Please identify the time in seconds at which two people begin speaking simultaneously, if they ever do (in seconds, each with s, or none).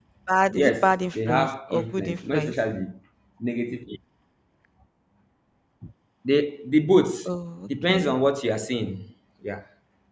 0.6 s